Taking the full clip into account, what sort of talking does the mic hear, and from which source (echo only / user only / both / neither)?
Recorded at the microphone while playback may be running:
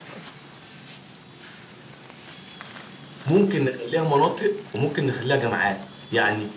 user only